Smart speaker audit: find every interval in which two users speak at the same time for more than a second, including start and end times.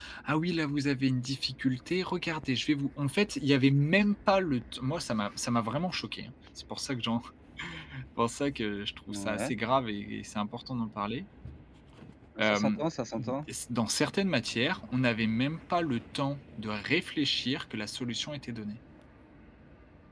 none

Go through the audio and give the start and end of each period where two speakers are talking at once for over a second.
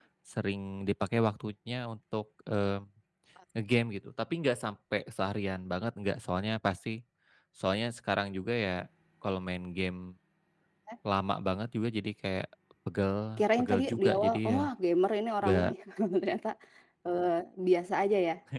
13.4-14.6

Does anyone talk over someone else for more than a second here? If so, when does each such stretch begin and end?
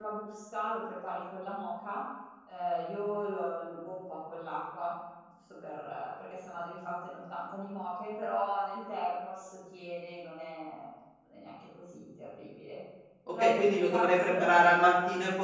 13.3-14.9

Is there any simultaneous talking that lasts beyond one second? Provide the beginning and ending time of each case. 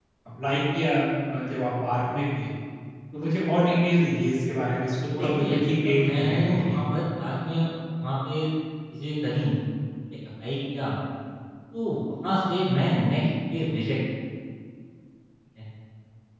5.2-6.8

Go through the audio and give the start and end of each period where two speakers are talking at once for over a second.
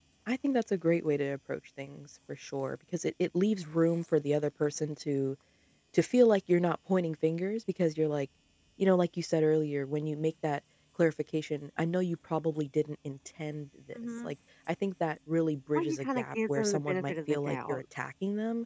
15.8-17.8

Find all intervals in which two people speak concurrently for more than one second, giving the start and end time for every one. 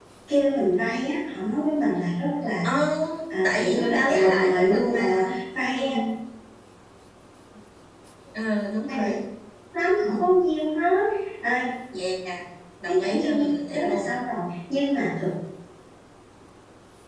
3.4-5.2, 12.9-14.1

